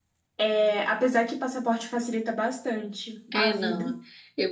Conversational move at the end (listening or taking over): taking over